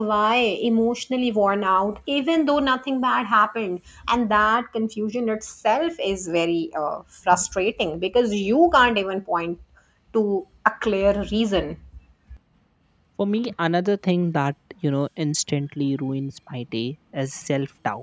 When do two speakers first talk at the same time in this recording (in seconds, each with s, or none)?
none